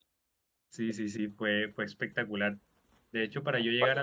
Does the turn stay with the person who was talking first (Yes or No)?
Yes